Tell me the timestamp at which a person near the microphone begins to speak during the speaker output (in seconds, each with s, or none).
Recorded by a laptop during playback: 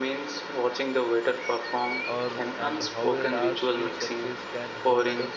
2.0 s